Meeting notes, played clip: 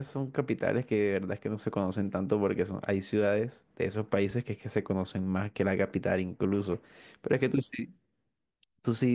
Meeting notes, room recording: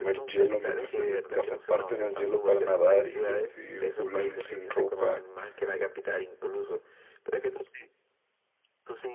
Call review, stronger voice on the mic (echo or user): user